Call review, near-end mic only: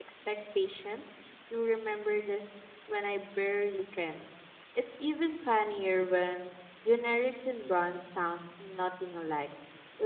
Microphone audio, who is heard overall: user only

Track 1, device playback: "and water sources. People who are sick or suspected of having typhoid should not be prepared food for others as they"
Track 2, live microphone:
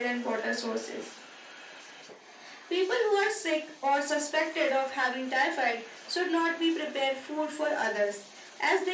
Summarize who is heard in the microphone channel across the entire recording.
echo only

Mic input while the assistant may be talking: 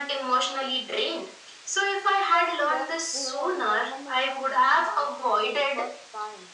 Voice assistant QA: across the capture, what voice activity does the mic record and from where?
both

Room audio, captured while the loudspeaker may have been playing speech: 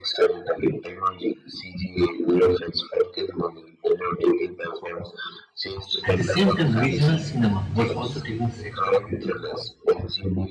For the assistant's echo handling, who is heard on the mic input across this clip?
both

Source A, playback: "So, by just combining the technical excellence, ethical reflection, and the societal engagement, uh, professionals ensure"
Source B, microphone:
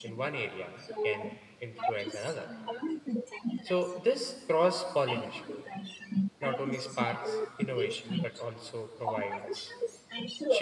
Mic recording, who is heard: both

